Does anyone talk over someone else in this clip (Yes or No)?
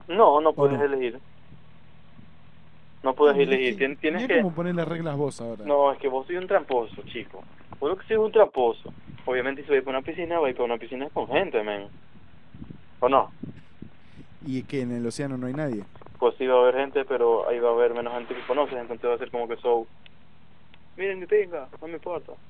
Yes